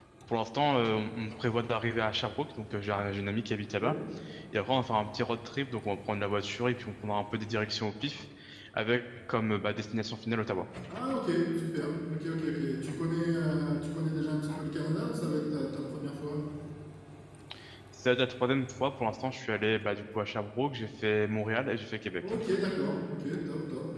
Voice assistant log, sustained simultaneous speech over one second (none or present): none